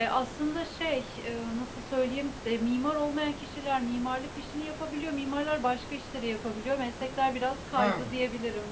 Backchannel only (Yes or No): No